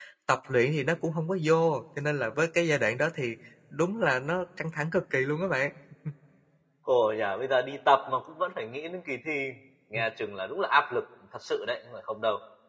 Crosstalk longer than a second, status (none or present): none